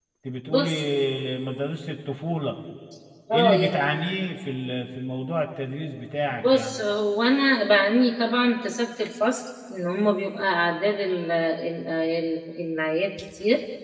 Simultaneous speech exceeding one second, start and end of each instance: none

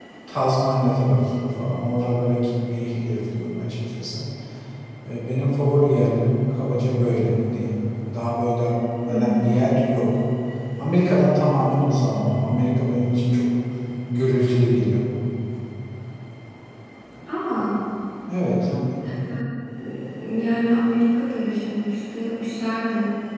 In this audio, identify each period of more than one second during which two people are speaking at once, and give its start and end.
none

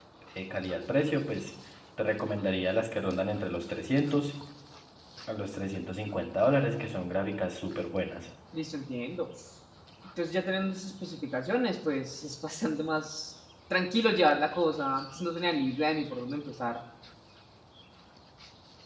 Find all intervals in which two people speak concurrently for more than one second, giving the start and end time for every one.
none

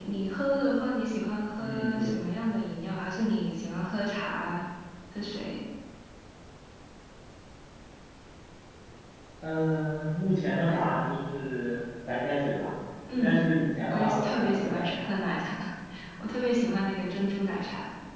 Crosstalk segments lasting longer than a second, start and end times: 13.9-15.1

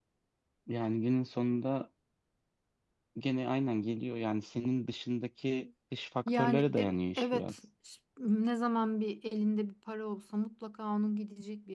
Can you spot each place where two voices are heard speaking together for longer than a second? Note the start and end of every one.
6.3-7.5

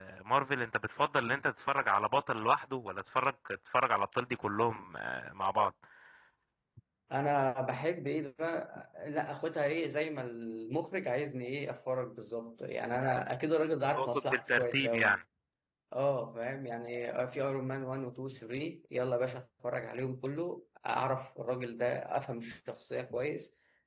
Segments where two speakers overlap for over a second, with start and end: 14.0-15.2

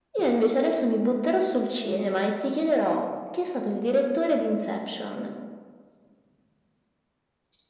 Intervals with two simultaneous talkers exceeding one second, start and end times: none

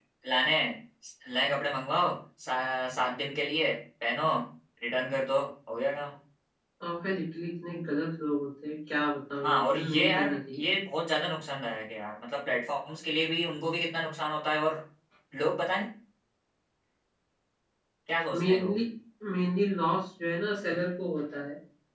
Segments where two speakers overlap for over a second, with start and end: 9.4-10.6

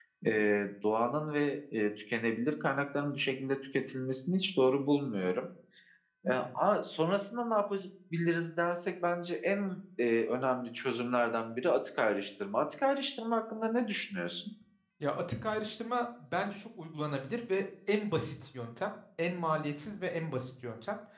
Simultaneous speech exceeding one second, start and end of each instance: none

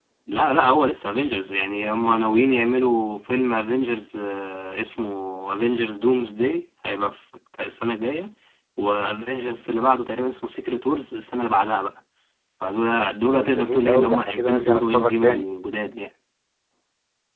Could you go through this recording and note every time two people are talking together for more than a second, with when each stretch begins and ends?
13.3-15.4

